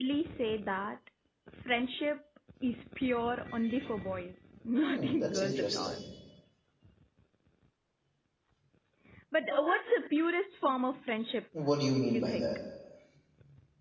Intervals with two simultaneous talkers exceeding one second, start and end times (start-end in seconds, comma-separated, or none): 4.7-6.0